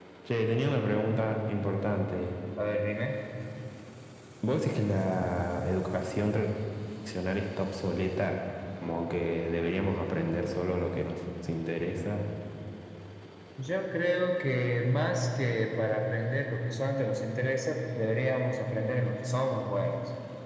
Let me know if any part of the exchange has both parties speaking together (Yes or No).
No